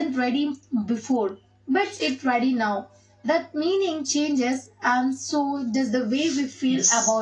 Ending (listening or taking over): taking over